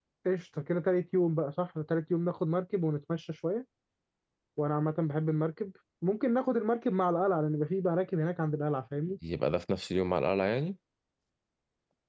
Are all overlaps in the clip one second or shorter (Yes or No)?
Yes